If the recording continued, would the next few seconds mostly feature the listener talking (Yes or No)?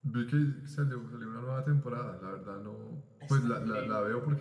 No